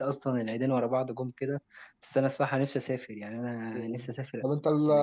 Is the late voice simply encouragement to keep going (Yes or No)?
No